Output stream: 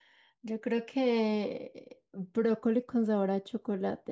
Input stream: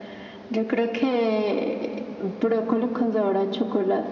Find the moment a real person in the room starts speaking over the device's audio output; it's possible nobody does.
none

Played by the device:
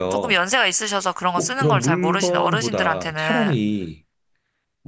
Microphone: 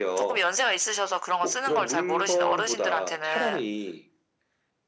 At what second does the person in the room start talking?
none

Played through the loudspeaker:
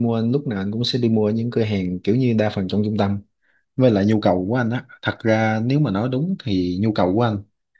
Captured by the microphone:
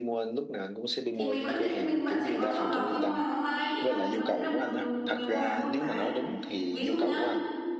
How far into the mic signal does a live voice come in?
1.1 s

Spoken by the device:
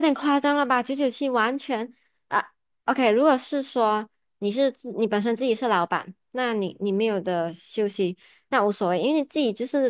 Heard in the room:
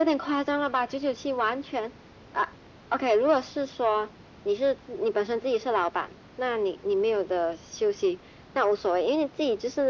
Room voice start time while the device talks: none

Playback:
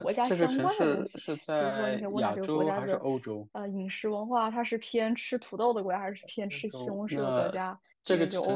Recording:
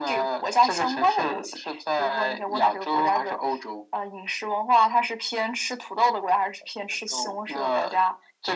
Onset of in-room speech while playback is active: none

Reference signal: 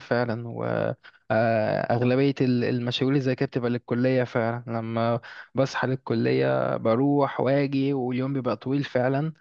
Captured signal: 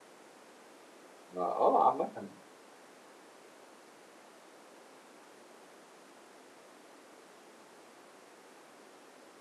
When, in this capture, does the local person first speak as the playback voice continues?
1.3 s

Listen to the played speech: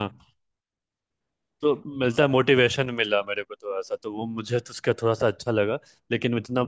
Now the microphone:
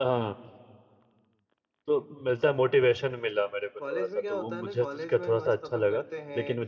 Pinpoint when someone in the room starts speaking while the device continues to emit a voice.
3.8 s

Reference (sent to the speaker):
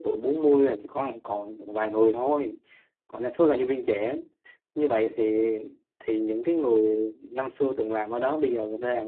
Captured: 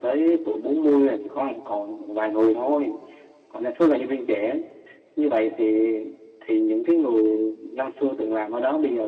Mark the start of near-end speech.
none

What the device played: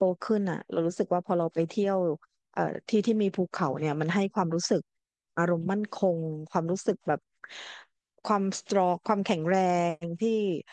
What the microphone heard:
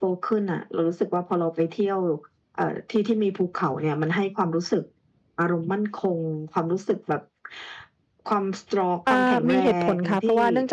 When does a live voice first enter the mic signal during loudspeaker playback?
9.0 s

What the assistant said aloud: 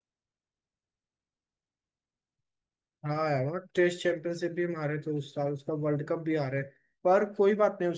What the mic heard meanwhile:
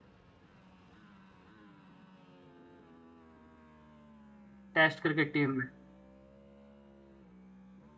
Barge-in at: 4.7 s

